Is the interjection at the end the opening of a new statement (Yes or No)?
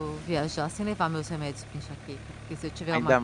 Yes